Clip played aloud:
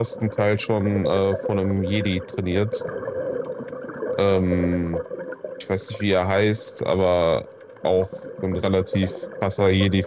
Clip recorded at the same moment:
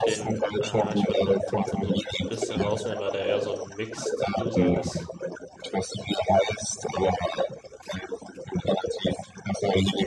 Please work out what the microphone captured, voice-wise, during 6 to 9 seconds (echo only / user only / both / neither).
echo only